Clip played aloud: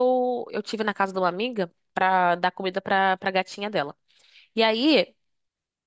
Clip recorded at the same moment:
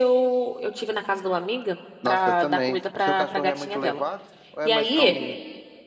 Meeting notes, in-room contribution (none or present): present